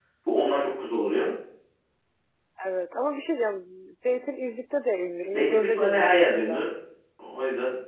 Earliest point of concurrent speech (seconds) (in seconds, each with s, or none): 5.3 s